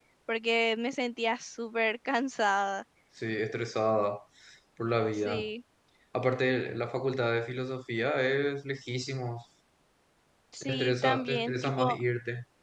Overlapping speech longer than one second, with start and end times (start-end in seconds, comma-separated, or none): 10.6-12.0